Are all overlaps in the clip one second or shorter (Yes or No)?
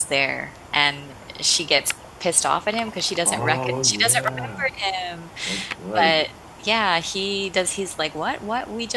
No